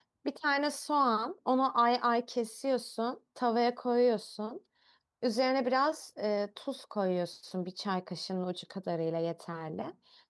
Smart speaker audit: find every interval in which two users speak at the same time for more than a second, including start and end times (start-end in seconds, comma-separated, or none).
none